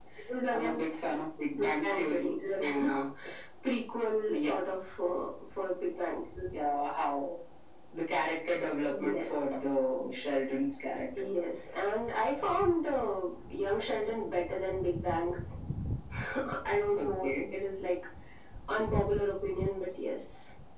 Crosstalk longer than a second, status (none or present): present